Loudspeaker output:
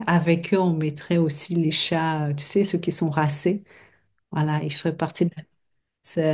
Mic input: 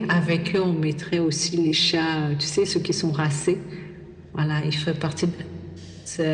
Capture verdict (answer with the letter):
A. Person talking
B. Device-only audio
B